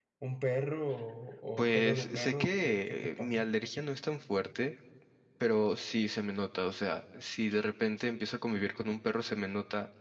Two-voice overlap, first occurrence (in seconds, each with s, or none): 1.6 s